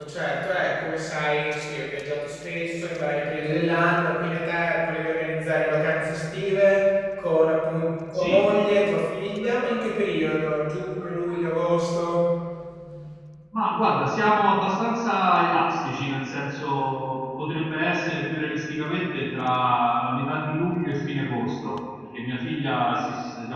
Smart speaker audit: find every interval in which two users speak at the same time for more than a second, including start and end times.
none

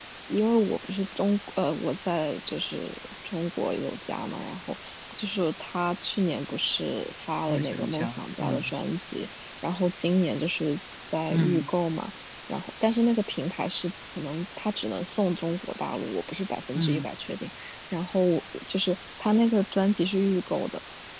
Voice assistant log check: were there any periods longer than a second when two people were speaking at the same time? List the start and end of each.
7.5-8.7

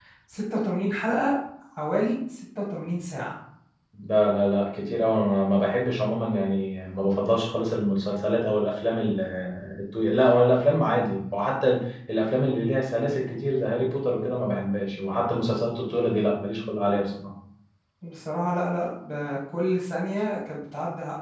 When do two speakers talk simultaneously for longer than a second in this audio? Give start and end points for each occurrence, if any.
none

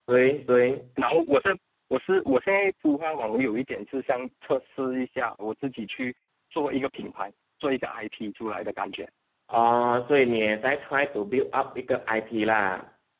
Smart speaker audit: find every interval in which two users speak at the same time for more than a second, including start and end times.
none

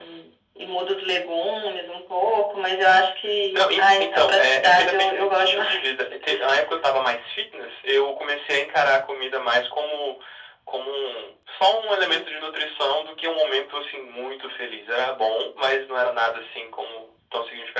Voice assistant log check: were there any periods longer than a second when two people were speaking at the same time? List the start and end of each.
3.5-5.8

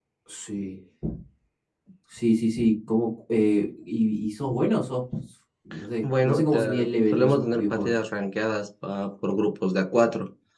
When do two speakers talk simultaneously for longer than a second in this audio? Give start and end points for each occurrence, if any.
6.0-7.9

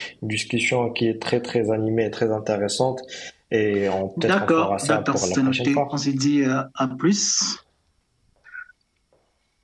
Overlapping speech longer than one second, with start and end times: 4.2-6.0

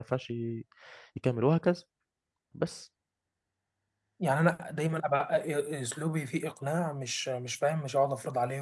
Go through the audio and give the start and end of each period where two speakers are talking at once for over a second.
none

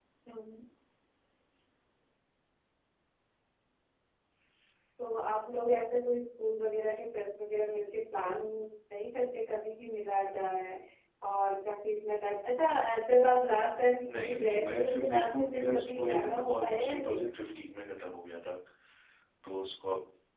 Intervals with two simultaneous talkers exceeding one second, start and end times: 14.0-17.3

